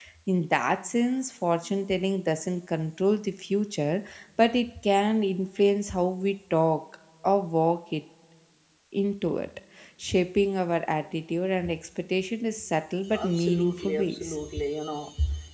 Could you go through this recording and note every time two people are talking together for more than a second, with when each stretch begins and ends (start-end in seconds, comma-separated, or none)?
13.2-14.4